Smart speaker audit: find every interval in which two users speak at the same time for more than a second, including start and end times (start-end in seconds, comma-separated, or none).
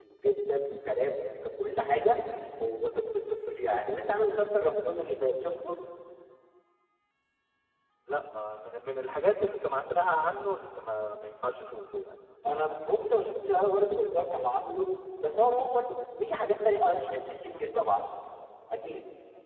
none